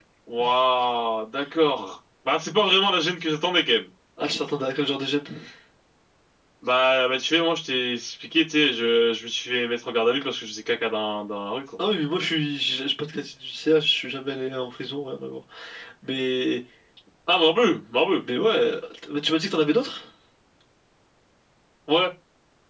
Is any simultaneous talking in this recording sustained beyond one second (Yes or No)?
No